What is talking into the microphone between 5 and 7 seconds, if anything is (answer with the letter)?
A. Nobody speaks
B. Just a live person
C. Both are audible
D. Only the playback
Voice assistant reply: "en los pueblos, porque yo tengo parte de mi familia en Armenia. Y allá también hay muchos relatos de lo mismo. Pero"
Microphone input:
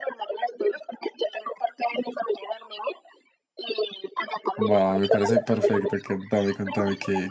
C